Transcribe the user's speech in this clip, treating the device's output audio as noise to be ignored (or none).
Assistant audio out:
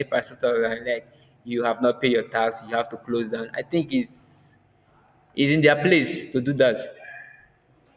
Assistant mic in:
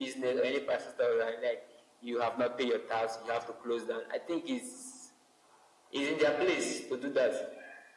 none